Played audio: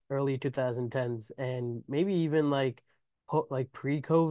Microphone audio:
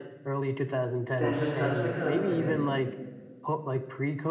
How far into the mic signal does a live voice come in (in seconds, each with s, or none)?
1.1 s